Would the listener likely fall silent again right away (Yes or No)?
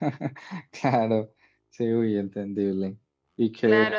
No